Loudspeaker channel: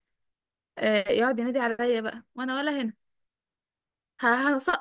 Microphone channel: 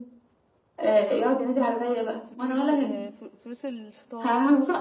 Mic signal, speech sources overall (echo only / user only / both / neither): both